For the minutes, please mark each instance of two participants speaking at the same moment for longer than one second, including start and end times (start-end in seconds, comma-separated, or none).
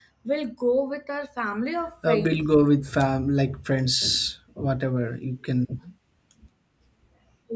none